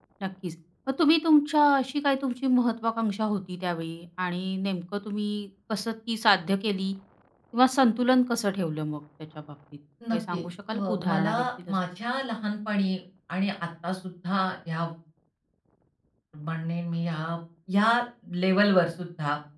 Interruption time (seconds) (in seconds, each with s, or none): 10.0 s